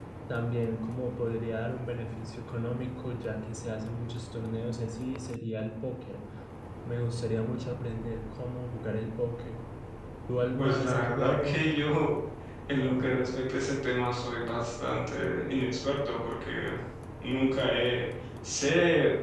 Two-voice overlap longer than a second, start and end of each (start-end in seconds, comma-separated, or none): 10.6-11.8